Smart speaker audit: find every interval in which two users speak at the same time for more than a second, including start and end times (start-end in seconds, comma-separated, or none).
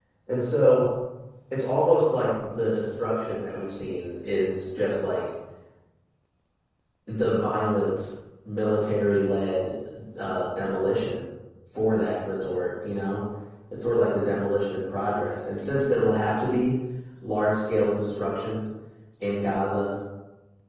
none